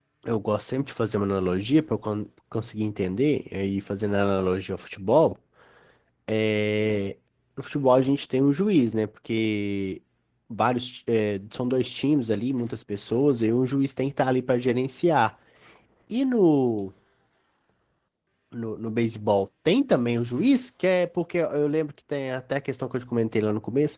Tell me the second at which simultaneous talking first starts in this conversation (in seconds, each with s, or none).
none